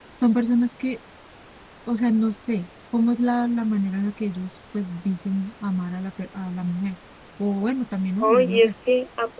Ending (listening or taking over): taking over